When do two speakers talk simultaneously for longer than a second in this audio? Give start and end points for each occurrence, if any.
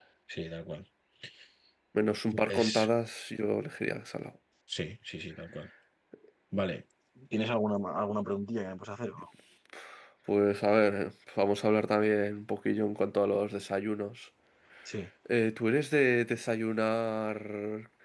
none

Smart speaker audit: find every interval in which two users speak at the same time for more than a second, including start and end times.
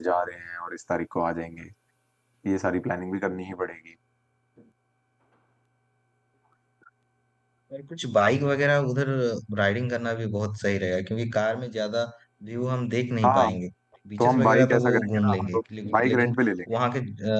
14.2-16.4

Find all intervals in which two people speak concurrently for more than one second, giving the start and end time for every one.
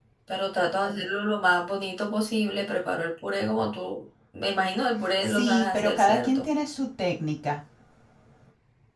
5.2-6.4

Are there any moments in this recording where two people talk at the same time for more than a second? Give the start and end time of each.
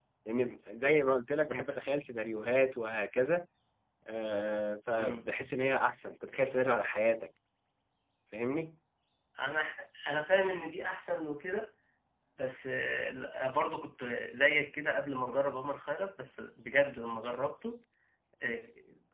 none

